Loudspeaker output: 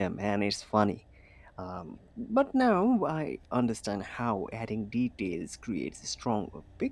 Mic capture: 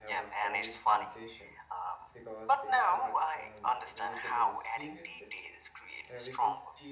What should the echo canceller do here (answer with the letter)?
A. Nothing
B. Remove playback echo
B